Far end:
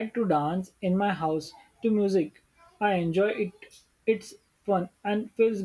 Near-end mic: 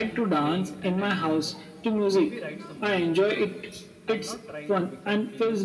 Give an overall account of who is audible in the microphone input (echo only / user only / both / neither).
both